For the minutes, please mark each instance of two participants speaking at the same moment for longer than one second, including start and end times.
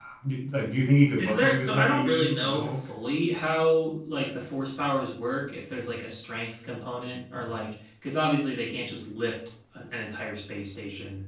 1.2-2.9

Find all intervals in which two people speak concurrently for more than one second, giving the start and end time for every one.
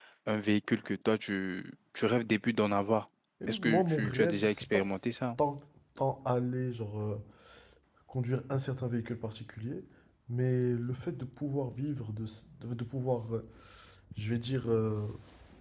3.5-4.8

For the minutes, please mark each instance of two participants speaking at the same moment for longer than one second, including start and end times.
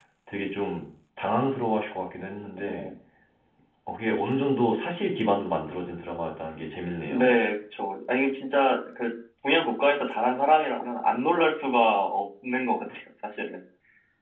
none

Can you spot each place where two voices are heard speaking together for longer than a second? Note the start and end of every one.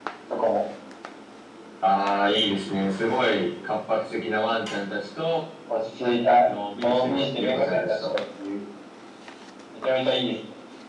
6.5-8.0

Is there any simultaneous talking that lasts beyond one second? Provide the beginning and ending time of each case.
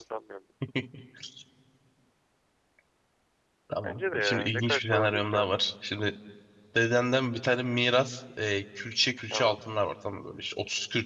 3.8-5.6

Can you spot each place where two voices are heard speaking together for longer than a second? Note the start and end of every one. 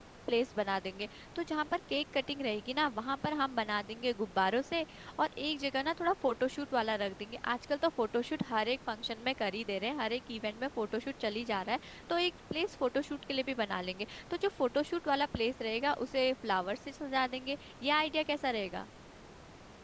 none

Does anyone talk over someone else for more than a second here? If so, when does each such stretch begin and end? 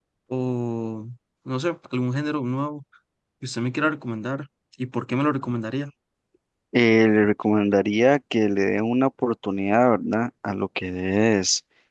none

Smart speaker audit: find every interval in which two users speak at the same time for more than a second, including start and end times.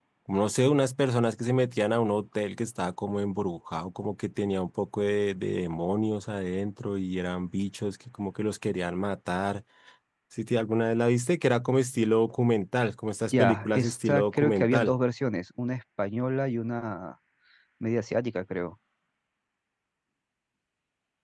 13.4-14.9

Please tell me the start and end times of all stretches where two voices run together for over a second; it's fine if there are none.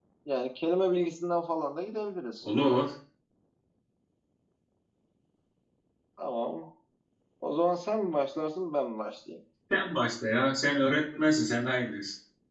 none

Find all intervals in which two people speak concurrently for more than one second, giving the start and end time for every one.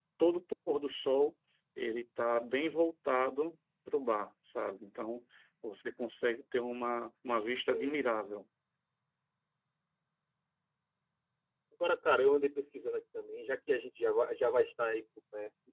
none

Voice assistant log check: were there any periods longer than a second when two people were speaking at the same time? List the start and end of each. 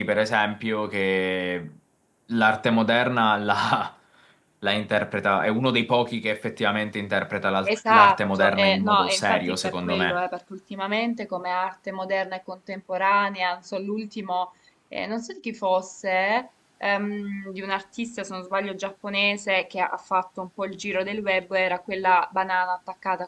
7.7-10.2

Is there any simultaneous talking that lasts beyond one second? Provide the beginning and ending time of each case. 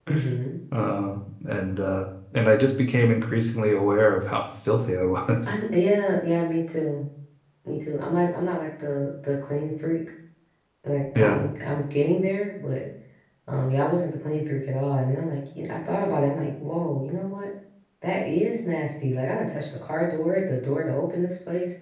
none

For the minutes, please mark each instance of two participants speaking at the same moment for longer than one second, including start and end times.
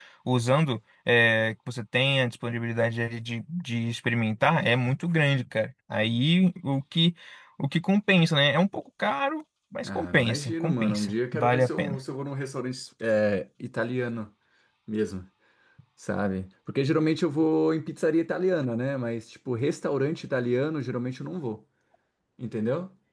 9.8-12.0

